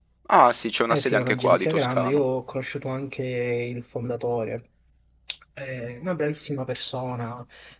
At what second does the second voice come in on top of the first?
0.9 s

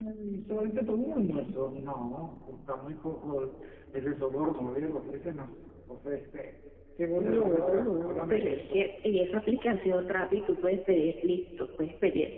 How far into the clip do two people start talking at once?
7.2 s

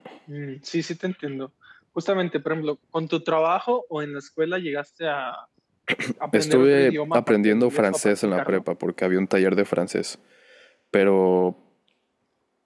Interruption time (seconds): 6.3 s

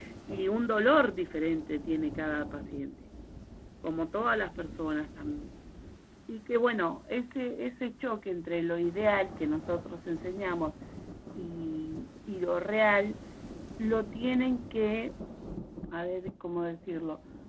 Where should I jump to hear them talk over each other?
none

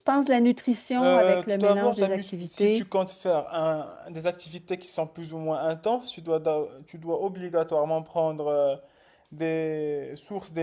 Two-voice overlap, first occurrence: 1.0 s

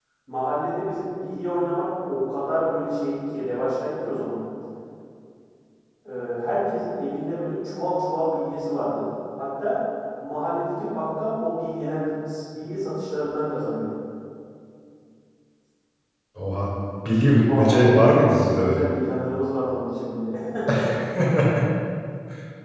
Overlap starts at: 17.3 s

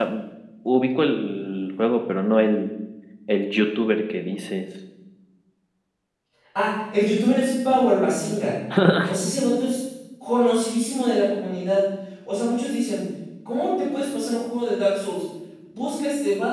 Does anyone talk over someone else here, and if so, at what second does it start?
none

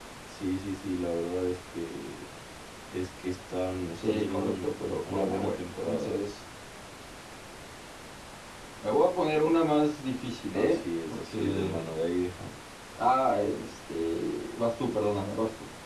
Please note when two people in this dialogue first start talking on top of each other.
4.0 s

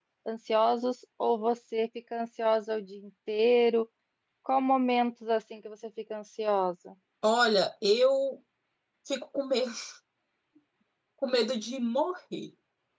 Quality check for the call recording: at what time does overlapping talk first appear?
none

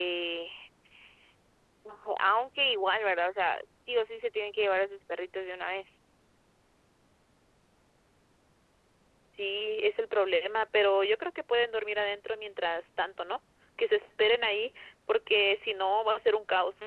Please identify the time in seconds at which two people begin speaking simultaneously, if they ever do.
none

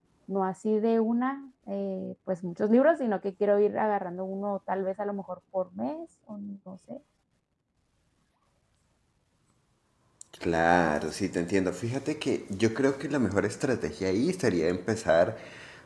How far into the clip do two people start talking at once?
none

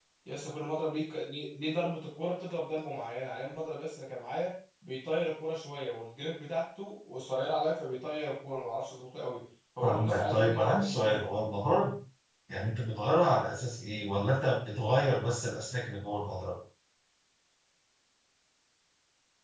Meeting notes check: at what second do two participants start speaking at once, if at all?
9.8 s

